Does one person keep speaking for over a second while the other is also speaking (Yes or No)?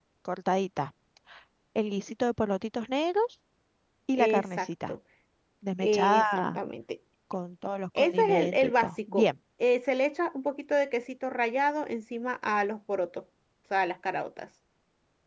Yes